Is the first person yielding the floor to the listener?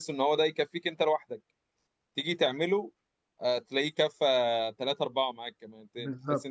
No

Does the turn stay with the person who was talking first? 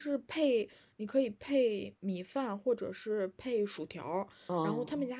Yes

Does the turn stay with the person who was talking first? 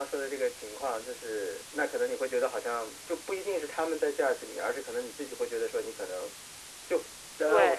Yes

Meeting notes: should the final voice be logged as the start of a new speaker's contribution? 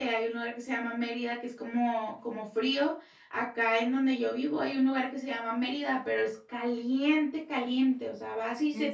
No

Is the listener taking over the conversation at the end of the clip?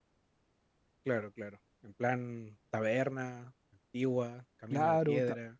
Yes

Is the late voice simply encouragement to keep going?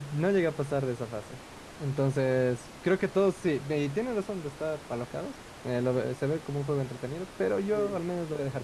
Yes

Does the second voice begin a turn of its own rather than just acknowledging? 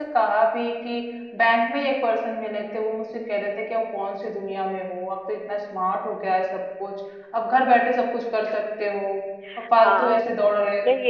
Yes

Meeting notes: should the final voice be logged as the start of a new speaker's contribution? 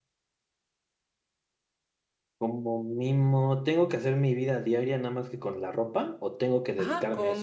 Yes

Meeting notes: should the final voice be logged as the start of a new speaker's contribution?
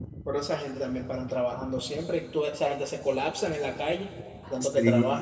Yes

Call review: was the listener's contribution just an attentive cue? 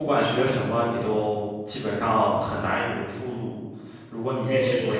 No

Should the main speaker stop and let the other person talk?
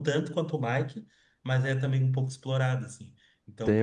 Yes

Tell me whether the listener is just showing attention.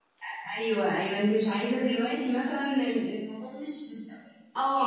No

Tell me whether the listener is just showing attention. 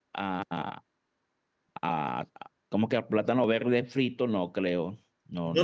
No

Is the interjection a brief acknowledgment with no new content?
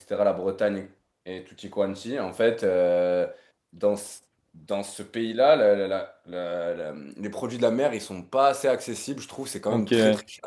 Yes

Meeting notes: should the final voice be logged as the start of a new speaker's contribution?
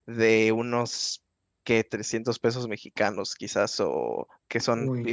No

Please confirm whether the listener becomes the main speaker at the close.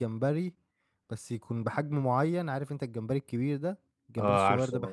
No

